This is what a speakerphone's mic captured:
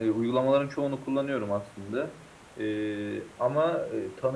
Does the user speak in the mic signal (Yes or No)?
No